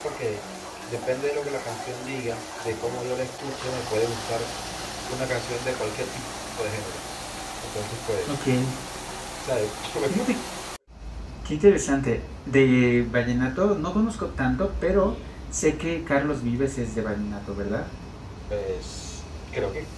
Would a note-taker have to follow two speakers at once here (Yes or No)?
No